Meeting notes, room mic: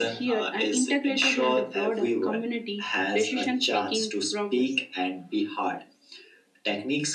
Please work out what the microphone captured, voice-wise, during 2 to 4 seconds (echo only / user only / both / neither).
echo only